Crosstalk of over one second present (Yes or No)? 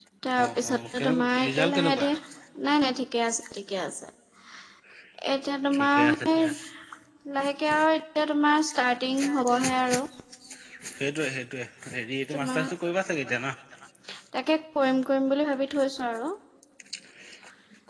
Yes